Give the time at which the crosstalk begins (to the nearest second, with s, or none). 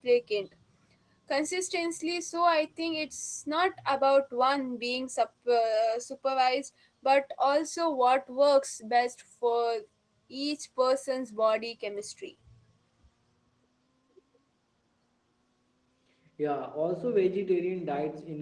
none